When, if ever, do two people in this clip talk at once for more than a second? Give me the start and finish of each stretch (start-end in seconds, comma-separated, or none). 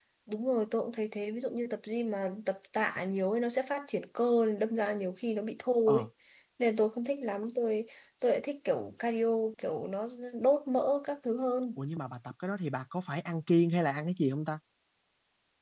none